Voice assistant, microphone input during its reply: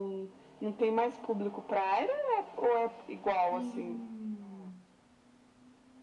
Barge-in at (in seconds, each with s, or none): 3.5 s